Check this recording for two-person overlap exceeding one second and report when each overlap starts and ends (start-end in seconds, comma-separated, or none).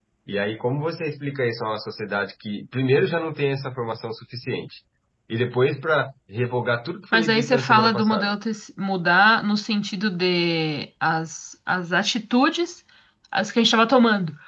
7.1-8.3